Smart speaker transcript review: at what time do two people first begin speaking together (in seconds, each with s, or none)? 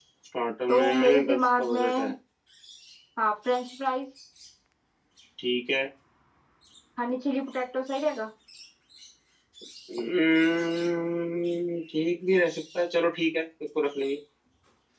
0.7 s